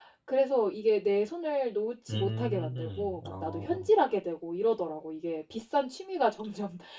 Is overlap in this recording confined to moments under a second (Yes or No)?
No